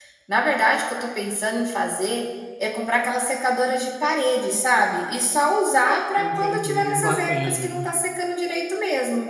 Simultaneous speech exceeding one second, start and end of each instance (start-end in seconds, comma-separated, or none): 6.2-7.8